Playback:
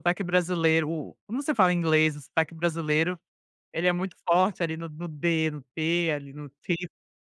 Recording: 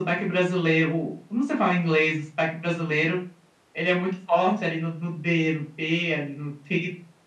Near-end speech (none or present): none